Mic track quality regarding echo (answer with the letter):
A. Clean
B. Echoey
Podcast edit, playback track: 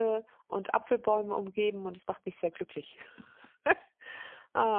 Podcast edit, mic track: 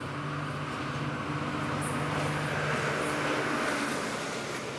A